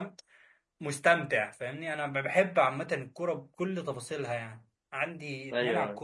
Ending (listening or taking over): listening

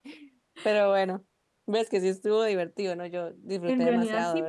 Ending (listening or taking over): taking over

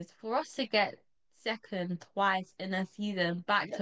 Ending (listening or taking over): taking over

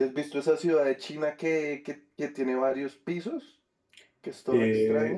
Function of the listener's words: taking over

